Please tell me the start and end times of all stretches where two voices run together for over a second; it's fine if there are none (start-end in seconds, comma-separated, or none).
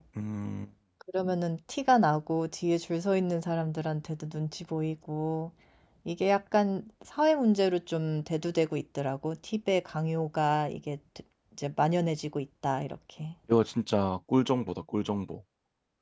none